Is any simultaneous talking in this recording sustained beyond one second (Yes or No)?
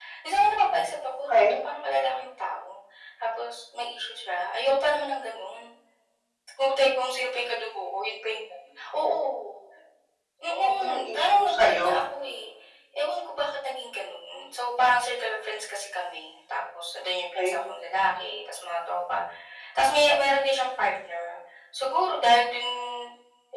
Yes